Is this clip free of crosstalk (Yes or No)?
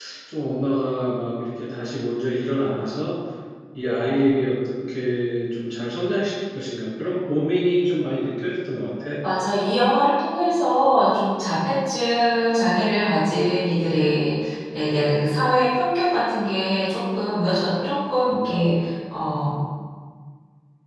Yes